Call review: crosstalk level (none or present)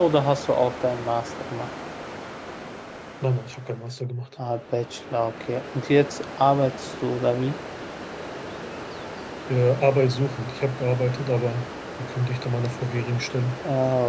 none